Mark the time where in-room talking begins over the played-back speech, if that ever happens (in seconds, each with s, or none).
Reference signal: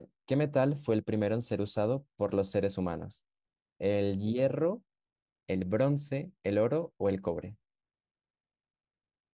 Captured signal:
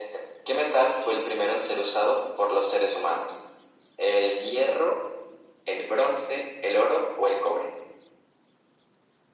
none